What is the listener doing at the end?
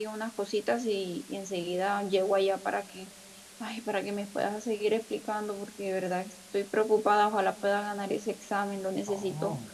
taking over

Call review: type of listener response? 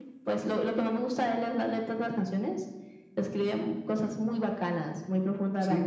taking over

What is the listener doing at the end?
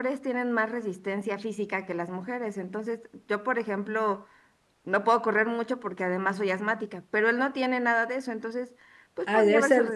taking over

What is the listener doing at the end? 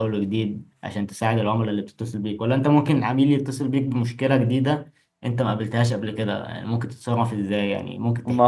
taking over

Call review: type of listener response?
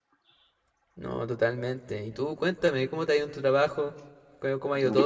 listening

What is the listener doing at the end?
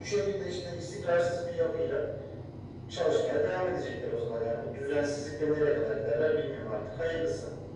taking over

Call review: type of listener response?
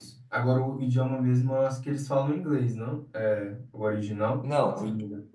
taking over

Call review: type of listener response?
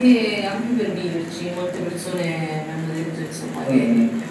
taking over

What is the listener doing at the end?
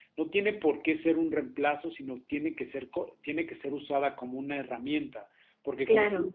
listening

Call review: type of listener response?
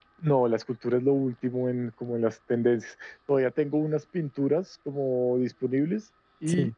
listening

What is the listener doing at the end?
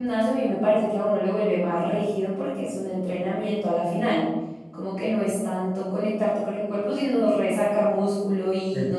taking over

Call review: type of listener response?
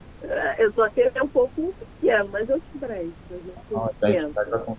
taking over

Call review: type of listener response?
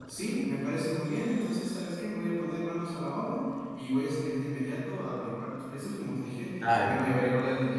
listening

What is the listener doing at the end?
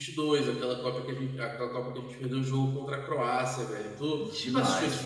taking over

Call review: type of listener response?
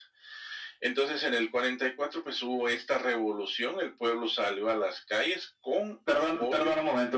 taking over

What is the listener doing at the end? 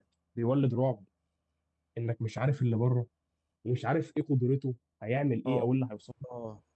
taking over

